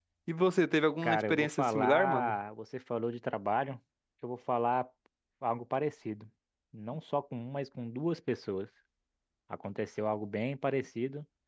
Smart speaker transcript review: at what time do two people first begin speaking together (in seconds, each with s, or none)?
1.0 s